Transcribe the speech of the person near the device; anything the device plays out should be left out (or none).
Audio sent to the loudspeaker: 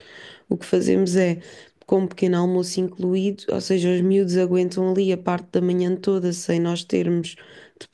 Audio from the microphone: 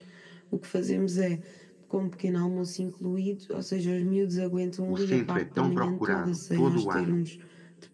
O centro é tão procurado todo o ano